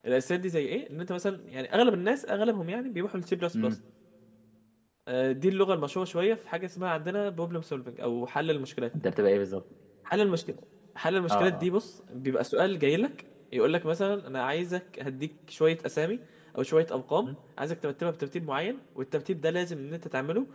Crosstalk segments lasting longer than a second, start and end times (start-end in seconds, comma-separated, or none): none